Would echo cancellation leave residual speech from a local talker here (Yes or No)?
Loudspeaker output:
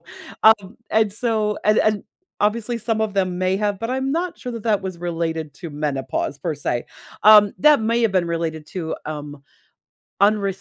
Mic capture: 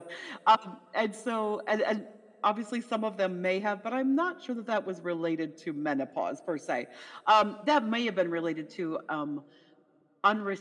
No